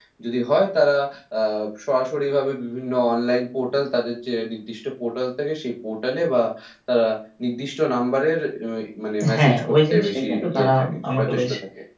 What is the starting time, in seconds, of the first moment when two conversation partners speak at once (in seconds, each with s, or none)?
9.2 s